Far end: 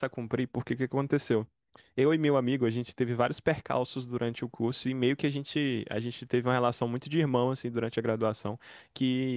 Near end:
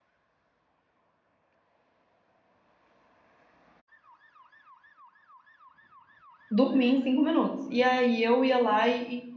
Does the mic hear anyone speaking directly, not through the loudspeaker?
Yes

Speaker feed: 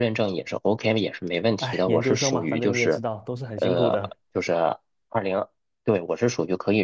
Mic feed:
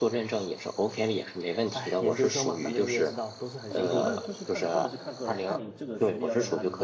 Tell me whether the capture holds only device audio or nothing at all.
No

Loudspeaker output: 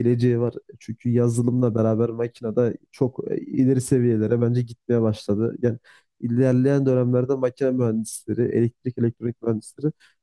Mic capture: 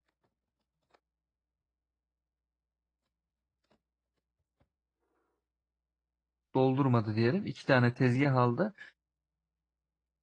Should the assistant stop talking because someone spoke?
Yes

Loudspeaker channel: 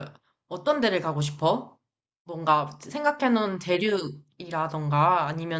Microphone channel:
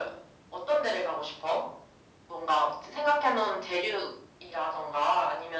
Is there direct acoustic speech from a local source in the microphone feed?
No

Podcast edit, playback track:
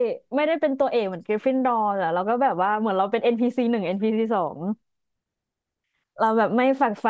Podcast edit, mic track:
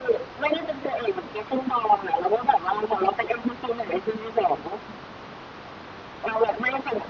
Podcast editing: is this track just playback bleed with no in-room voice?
Yes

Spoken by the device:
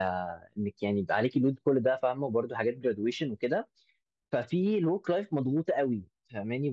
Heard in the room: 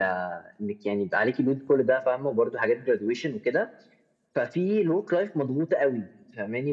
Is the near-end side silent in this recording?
Yes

